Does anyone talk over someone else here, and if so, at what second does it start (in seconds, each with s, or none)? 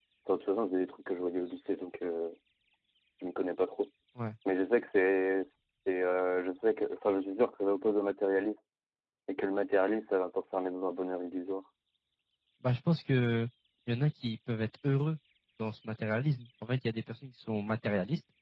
none